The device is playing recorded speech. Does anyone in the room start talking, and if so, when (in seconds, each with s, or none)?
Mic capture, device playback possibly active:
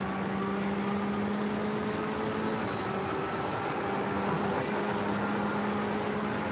none